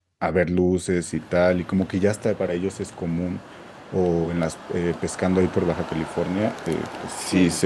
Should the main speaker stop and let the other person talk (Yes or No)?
No